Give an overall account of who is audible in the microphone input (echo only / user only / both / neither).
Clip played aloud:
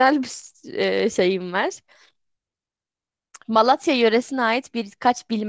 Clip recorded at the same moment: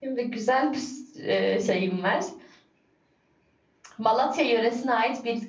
echo only